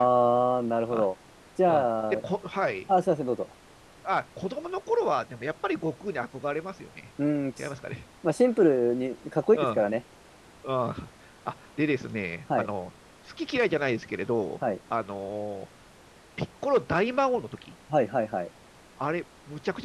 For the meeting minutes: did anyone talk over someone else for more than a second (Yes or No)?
No